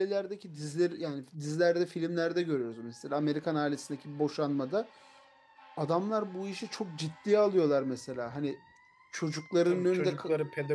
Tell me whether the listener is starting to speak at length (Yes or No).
Yes